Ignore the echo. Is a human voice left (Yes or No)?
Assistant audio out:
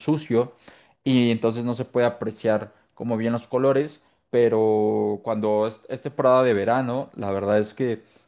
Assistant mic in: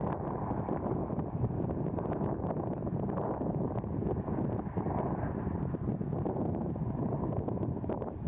No